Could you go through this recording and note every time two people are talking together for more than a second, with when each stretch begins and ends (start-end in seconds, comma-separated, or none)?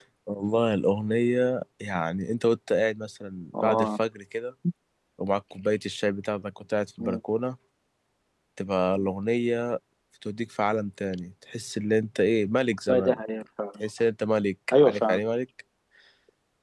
none